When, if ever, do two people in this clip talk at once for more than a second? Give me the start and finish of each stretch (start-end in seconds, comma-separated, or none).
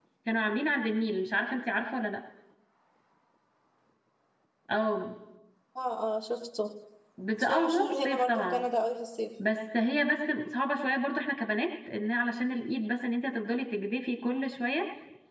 7.4-8.6